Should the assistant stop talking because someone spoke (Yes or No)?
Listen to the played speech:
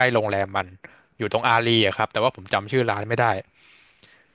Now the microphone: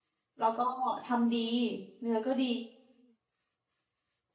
Yes